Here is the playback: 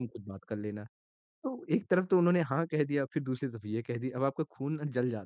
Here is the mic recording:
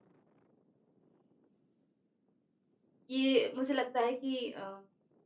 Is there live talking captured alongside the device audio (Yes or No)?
Yes